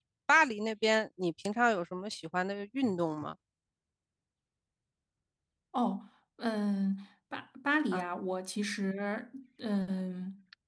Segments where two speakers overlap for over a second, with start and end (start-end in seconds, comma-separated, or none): none